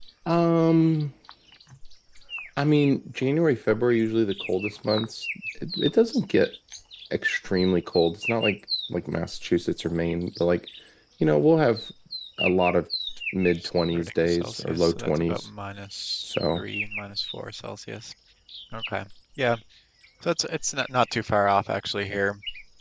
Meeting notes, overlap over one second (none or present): present